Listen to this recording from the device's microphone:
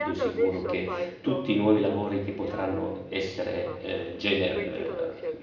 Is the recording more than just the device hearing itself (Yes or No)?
Yes